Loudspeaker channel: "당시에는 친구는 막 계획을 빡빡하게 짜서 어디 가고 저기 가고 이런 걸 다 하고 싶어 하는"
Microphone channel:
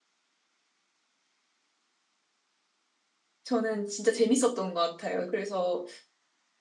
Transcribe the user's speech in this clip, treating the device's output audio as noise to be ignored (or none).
저는 진짜 재밌었던 것 같아요. 그래서